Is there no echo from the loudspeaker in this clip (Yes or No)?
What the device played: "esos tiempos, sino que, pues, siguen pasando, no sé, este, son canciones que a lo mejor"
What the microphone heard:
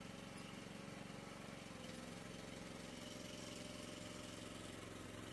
Yes